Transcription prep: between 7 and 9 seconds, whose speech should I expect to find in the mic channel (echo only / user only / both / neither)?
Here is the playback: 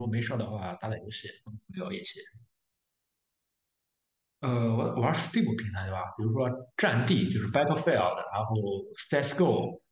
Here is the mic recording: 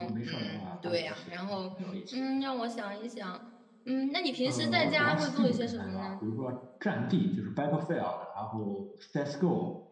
echo only